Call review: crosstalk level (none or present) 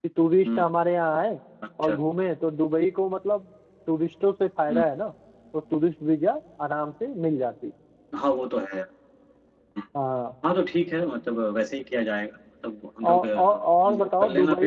present